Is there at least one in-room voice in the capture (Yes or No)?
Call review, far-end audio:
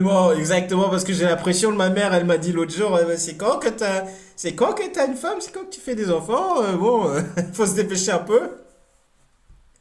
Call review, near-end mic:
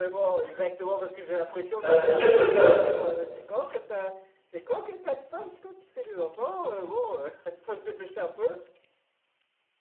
Yes